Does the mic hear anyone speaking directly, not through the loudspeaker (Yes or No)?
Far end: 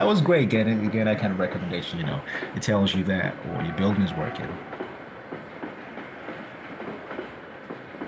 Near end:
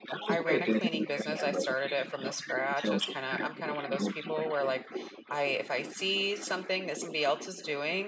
Yes